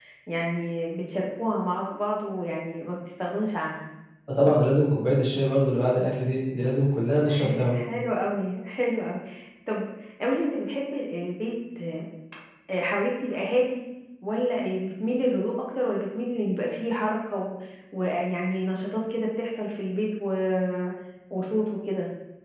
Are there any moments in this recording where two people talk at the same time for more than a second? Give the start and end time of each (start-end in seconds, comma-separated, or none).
none